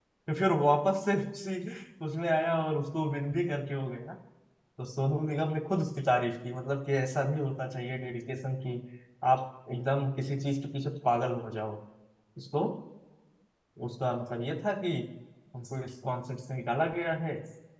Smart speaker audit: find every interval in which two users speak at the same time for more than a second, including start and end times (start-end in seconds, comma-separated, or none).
none